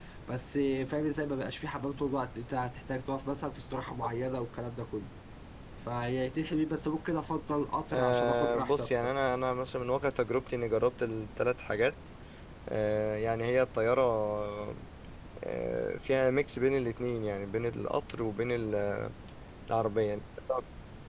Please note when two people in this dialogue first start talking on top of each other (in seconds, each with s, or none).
7.9 s